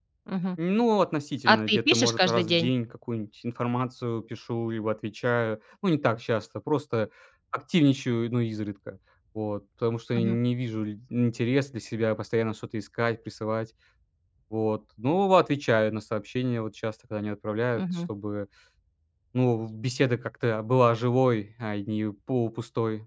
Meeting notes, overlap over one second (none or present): present